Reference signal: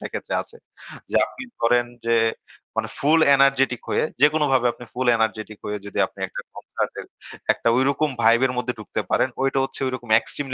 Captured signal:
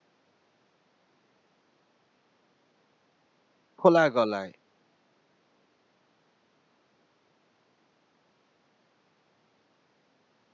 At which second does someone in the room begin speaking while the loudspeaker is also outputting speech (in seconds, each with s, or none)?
3.8 s